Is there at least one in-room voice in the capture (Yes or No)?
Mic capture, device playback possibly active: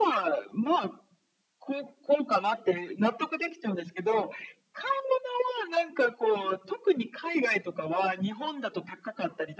No